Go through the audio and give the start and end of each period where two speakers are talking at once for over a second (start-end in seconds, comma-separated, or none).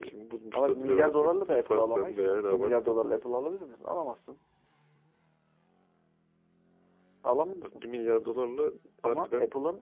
0.5-3.0